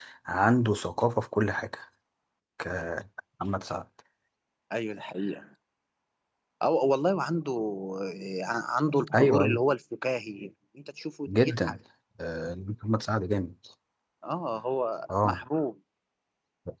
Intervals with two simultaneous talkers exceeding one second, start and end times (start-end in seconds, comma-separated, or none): none